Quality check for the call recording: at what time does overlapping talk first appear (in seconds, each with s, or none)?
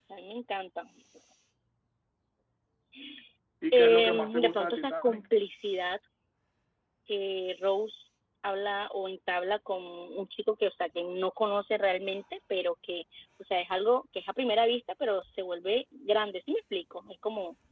3.7 s